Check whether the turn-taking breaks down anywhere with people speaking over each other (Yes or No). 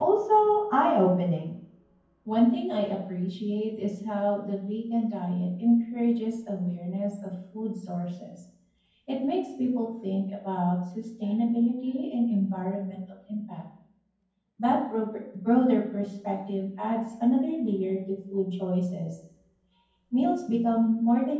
No